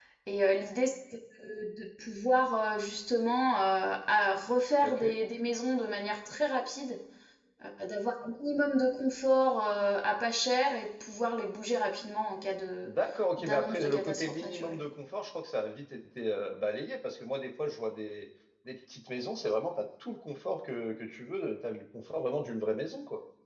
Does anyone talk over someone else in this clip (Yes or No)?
Yes